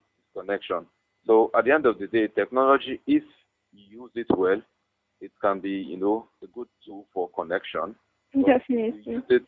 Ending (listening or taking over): listening